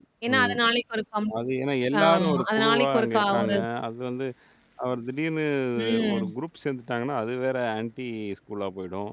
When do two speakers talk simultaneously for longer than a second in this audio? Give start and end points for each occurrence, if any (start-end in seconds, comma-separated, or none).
2.0-3.5